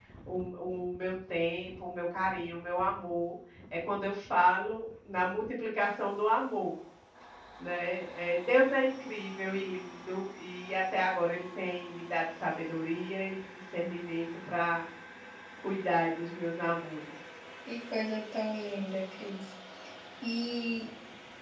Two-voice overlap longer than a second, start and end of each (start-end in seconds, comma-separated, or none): none